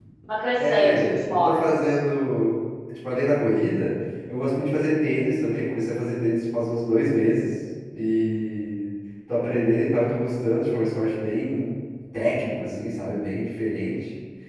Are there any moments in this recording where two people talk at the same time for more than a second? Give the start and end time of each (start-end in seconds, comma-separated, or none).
0.6-1.8